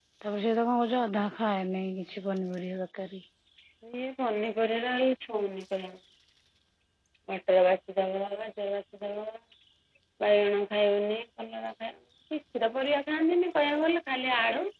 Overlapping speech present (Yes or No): No